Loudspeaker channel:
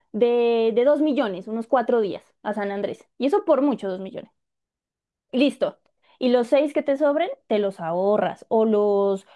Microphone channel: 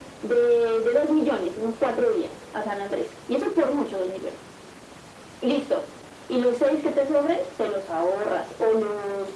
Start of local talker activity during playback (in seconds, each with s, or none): none